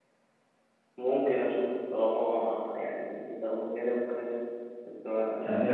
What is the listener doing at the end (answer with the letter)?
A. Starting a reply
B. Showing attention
A